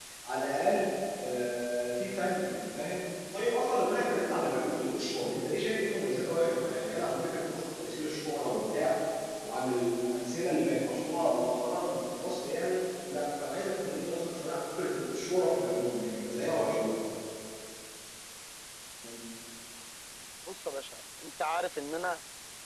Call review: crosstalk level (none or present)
none